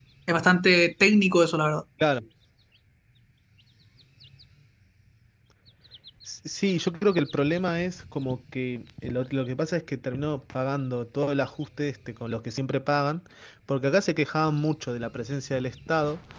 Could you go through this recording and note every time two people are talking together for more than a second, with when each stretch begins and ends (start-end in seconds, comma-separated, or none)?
none